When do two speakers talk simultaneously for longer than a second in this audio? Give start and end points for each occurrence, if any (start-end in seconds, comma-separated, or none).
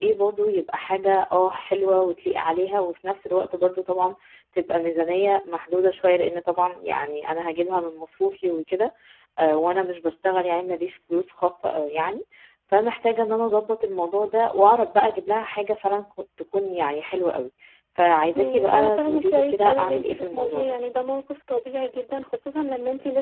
18.4-20.8